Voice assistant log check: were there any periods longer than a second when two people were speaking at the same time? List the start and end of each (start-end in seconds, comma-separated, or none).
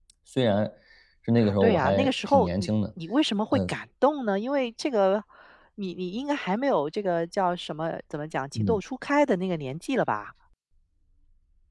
1.4-2.7